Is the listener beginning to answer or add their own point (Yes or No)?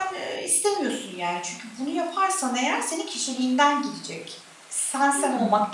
No